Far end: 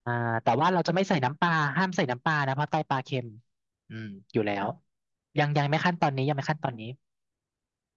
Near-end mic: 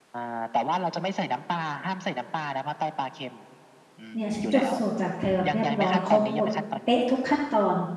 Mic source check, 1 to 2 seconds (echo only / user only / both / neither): echo only